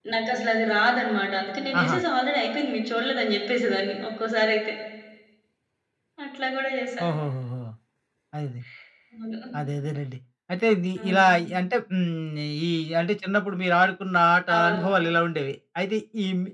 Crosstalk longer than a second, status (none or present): none